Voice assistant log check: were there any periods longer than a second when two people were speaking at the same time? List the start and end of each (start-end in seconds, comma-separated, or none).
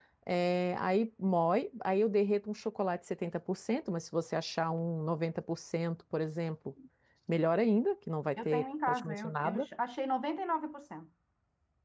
8.4-9.7